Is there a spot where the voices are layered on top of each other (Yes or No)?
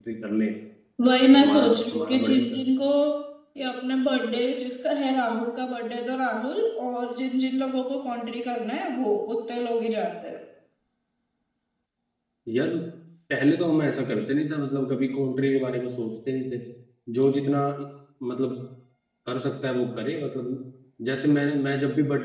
Yes